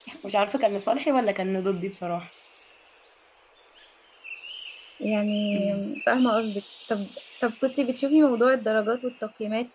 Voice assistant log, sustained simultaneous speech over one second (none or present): none